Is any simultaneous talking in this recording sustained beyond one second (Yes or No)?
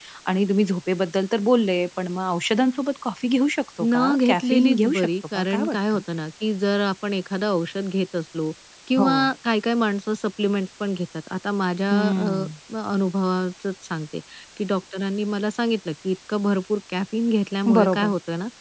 Yes